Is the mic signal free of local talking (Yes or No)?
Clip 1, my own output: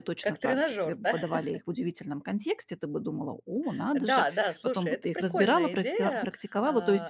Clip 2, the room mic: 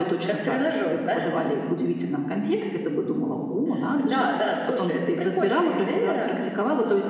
Yes